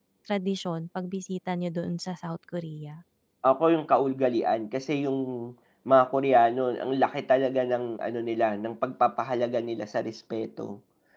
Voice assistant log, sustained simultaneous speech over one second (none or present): none